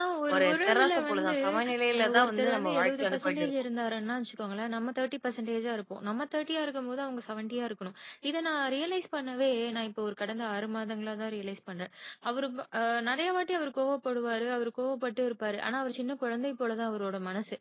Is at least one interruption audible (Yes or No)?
Yes